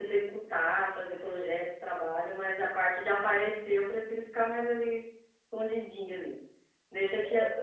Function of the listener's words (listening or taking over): listening